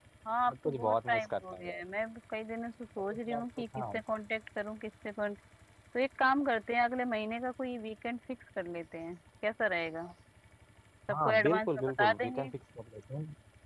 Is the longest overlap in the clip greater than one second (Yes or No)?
Yes